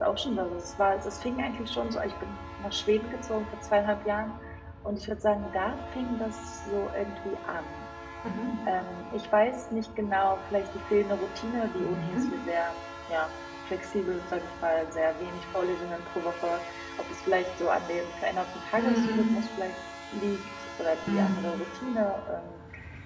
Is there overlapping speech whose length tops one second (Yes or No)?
No